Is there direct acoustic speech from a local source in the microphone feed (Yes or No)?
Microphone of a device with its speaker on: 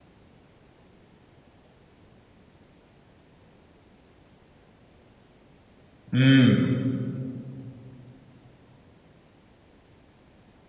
Yes